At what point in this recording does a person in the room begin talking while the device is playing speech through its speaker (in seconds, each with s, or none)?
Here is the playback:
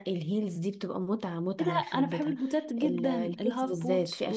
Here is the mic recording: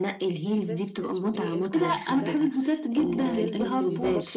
0.4 s